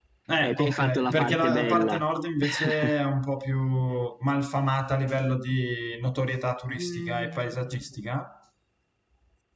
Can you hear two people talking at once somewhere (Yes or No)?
Yes